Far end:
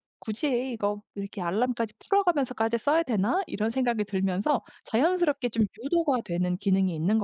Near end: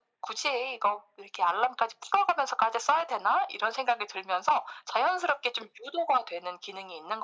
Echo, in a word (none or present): present